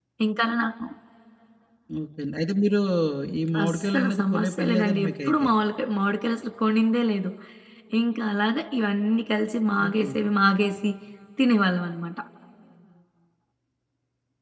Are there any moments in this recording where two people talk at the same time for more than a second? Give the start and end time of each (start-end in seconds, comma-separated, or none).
3.6-5.5